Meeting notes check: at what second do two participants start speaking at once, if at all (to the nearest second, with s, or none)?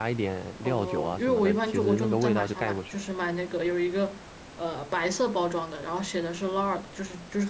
1 s